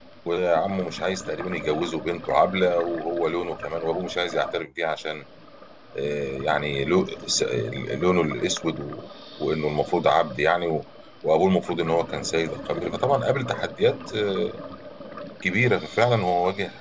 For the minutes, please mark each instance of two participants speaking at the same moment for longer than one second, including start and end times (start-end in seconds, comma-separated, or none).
none